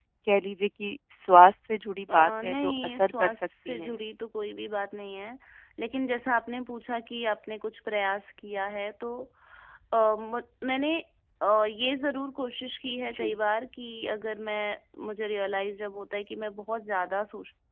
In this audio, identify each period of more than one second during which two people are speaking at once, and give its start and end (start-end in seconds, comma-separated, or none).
2.1-4.0